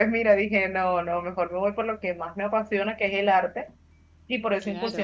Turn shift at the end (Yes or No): No